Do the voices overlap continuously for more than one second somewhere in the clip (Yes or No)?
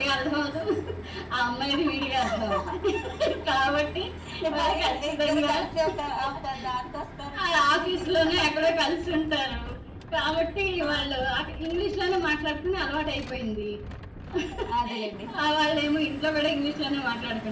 Yes